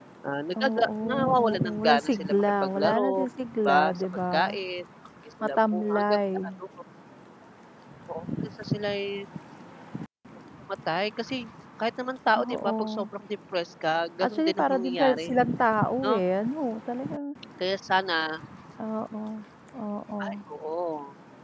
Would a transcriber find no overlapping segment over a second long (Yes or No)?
No